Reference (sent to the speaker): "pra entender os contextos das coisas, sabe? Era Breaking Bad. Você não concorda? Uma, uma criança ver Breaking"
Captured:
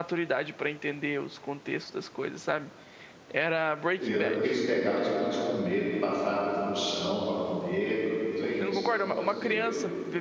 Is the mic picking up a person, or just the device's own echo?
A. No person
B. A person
B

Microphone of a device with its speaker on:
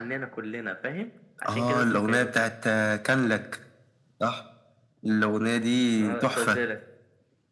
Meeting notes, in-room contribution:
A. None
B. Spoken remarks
A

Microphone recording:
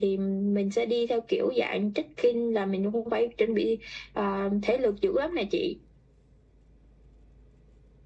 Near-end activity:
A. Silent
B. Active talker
A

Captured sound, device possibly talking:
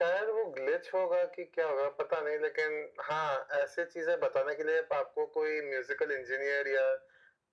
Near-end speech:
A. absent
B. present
A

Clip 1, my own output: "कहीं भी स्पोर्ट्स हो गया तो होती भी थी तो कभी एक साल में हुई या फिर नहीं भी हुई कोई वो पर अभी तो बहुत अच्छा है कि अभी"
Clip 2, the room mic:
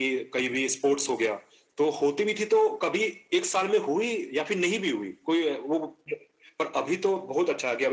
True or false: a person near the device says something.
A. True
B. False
B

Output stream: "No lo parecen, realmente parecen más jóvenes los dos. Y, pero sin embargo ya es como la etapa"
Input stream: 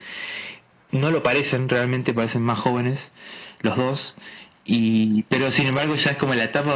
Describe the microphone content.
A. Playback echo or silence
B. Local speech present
A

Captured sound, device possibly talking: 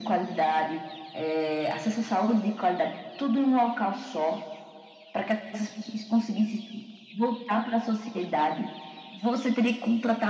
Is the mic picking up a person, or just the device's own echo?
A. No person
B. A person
A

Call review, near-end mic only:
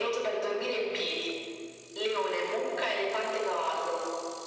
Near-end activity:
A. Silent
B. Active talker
A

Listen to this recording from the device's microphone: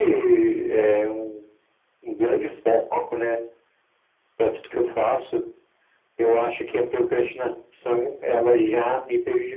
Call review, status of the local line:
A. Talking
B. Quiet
B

